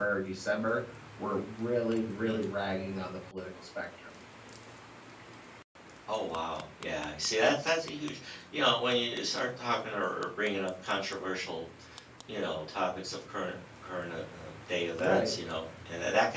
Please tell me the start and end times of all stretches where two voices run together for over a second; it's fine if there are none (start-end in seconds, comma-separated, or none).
none